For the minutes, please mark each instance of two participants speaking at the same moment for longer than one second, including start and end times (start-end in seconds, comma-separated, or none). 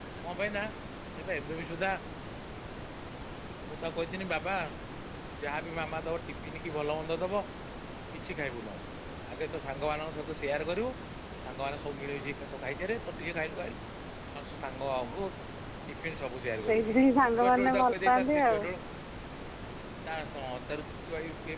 17.4-18.6